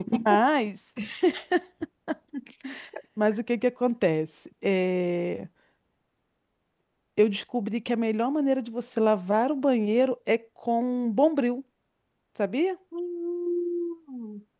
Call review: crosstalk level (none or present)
none